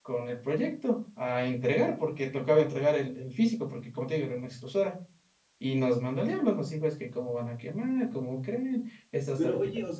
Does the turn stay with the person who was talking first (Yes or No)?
No